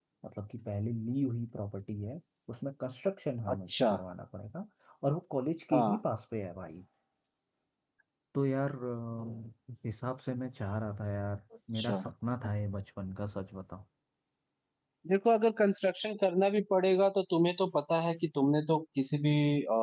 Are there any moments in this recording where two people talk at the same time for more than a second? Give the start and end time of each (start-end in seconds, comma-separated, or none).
none